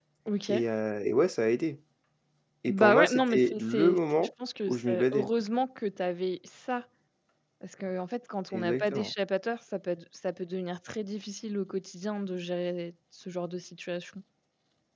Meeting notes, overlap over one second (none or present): present